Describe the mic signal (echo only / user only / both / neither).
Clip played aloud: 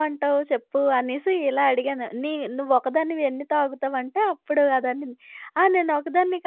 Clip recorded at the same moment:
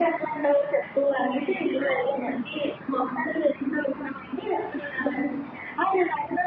echo only